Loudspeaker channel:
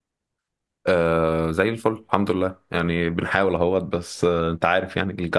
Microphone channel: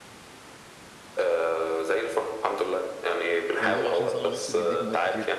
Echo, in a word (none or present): present